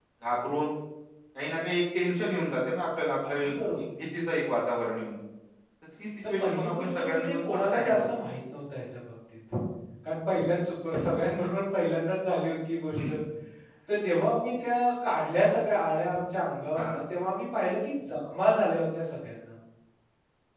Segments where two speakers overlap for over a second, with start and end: 6.4-8.1

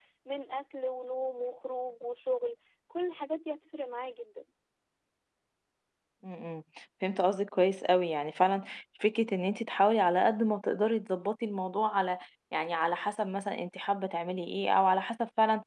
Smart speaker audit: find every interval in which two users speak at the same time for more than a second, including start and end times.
none

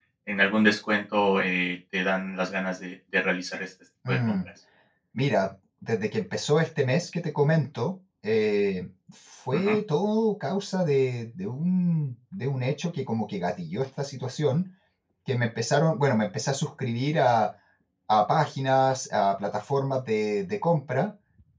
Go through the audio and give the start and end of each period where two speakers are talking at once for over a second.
none

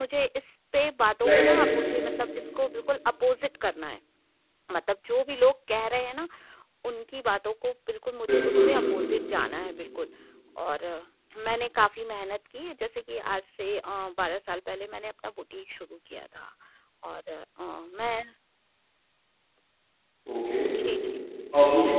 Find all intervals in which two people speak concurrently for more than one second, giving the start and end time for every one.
none

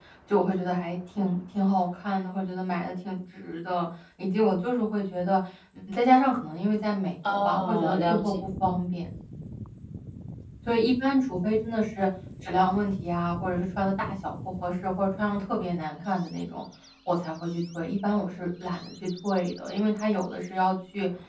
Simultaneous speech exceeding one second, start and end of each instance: 7.3-8.8

